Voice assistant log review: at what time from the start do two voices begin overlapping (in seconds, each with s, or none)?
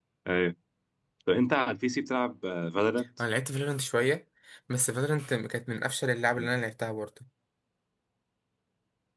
none